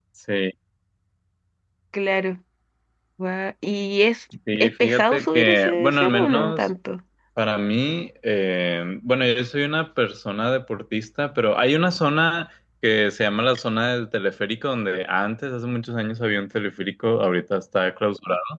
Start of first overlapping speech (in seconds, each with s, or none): 4.5 s